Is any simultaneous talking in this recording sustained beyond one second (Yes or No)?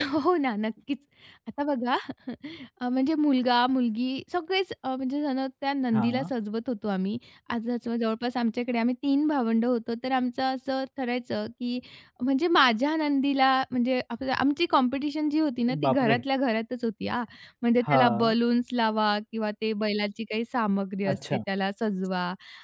No